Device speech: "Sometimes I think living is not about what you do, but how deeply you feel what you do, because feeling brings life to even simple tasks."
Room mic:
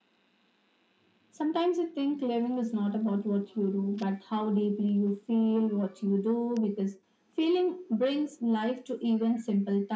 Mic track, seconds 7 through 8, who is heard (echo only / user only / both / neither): echo only